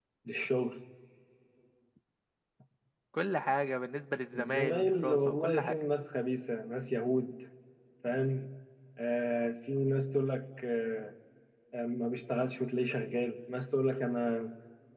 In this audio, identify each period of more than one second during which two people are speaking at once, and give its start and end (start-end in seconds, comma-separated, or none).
4.3-5.8